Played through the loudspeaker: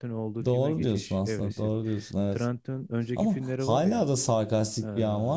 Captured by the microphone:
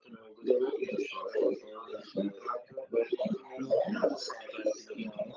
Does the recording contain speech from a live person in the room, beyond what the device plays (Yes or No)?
No